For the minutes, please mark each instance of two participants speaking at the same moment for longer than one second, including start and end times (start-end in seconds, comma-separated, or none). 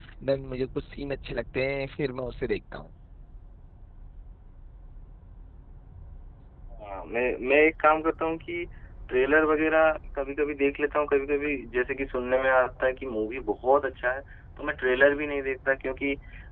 none